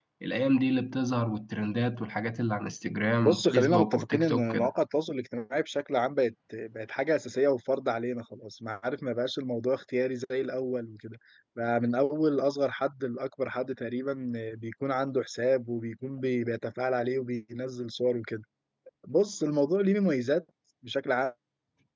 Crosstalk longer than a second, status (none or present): present